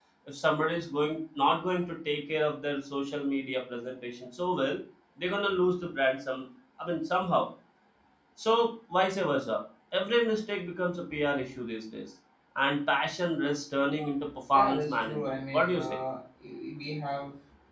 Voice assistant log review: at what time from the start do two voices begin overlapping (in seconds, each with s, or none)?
14.5 s